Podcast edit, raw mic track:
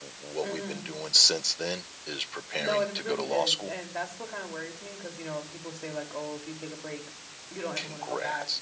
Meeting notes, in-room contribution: present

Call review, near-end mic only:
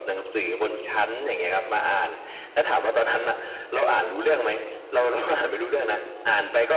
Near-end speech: none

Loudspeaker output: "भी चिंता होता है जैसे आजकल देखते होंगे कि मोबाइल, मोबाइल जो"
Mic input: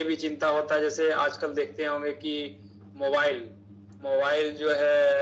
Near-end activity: none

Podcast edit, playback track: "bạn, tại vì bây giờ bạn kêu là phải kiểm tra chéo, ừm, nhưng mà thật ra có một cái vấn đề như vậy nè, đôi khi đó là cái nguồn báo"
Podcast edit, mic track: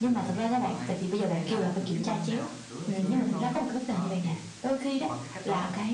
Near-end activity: present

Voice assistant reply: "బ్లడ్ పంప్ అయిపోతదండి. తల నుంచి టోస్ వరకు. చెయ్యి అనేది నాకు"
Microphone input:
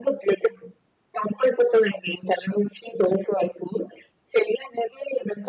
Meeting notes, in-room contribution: none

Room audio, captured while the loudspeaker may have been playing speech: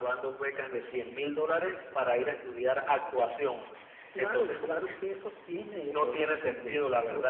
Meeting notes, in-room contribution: none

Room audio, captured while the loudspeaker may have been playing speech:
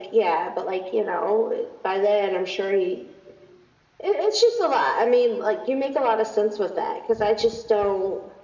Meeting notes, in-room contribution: none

